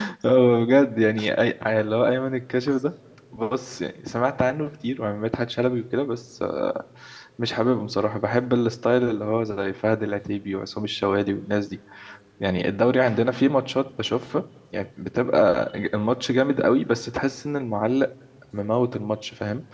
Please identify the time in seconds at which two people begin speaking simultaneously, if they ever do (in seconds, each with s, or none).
none